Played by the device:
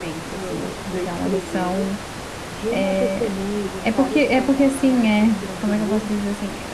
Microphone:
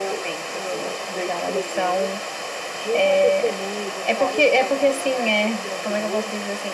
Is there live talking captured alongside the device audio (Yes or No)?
No